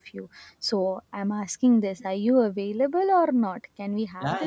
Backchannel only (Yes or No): No